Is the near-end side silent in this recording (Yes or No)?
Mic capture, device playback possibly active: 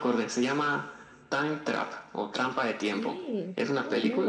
No